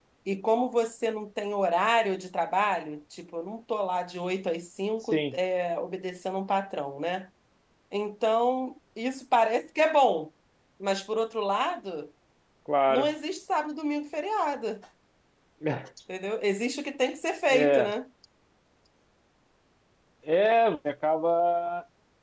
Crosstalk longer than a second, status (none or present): none